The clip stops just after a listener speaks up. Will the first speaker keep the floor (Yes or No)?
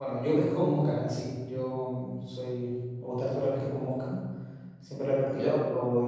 Yes